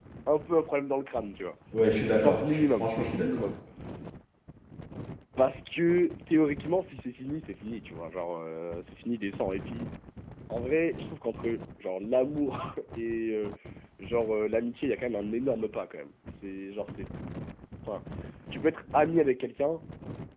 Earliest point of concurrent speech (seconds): 2.2 s

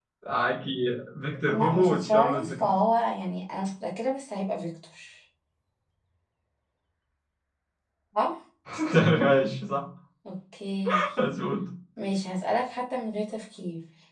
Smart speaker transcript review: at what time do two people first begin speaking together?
1.5 s

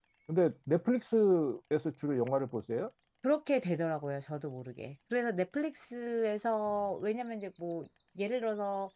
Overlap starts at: none

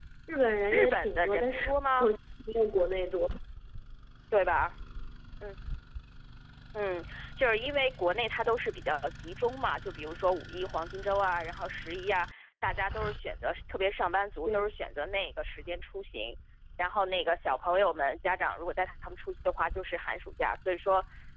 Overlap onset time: 0.7 s

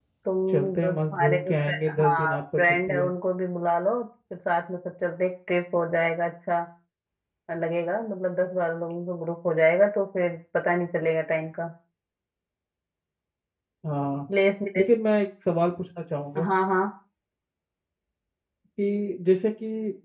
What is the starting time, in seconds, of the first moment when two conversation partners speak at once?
0.8 s

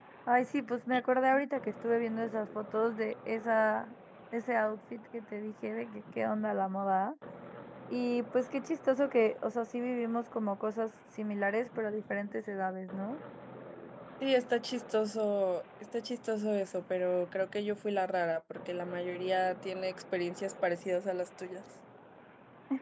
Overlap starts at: none

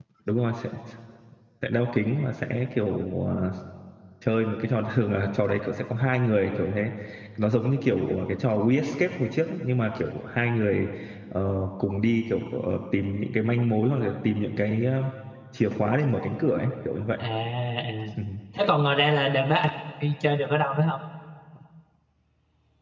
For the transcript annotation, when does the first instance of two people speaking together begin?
none

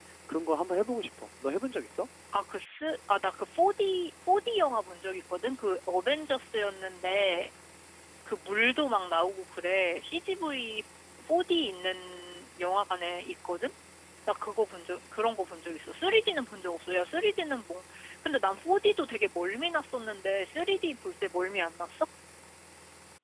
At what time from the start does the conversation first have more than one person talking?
none

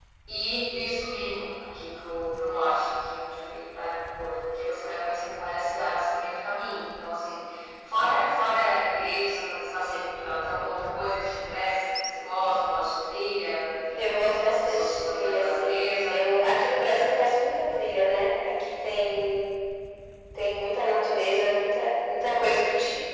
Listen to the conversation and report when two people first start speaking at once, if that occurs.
14.0 s

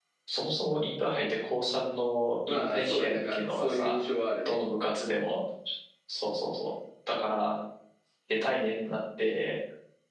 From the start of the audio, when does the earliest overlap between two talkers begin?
2.5 s

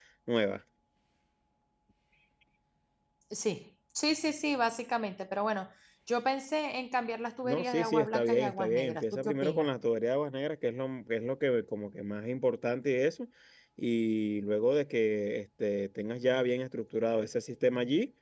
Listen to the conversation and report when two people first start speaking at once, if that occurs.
7.4 s

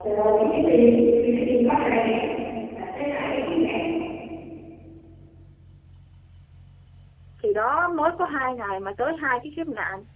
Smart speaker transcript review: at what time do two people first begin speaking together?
none

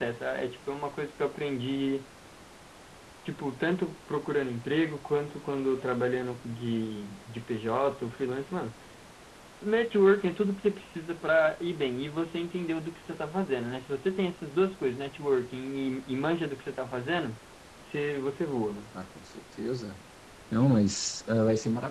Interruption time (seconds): none

